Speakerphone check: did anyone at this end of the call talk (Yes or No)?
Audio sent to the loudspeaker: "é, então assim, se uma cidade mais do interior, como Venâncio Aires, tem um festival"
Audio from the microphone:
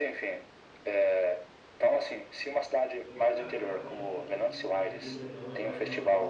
Yes